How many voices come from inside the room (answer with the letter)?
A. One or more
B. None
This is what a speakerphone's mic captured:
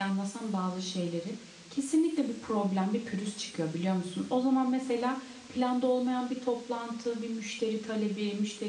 A